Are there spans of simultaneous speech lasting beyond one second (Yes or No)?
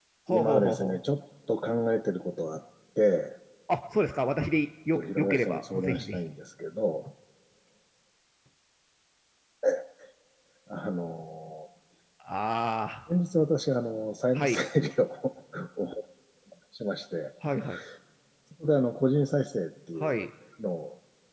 Yes